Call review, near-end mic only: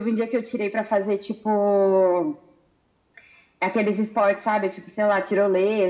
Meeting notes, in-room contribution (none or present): none